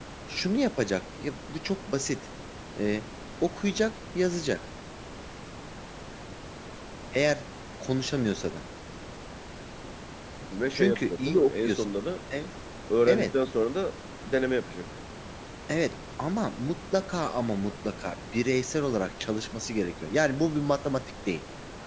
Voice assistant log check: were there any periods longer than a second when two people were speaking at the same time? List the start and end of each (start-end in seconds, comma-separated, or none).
10.7-11.9